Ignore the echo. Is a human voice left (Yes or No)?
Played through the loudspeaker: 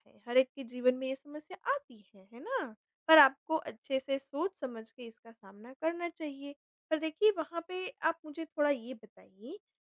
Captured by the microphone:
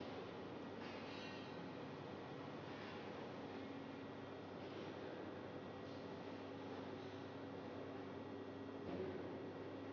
No